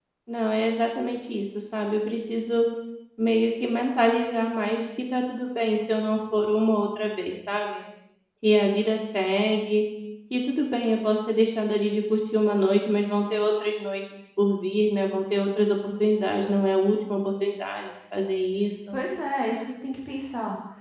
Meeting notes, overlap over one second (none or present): none